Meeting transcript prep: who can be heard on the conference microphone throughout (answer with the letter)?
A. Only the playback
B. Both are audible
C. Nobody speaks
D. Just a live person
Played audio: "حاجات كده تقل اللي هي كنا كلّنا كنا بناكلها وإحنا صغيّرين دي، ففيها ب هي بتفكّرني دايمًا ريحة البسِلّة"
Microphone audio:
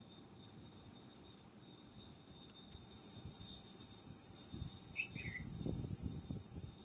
C